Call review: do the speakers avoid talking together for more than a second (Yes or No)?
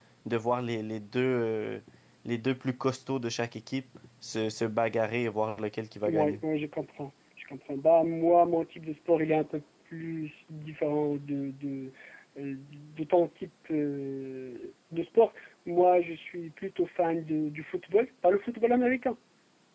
Yes